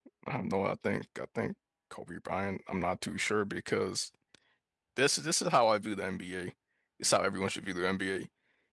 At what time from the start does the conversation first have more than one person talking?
none

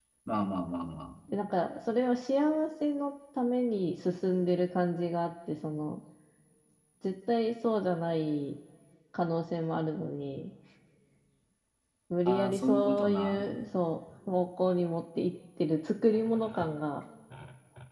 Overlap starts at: 12.2 s

